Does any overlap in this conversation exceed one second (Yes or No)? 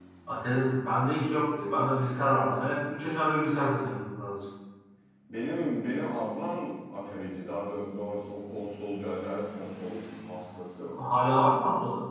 No